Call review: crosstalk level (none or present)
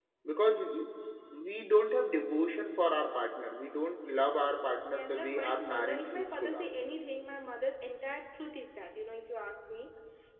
present